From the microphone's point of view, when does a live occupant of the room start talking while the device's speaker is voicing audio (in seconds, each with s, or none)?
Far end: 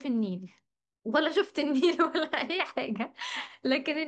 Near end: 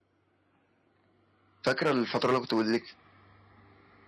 1.6 s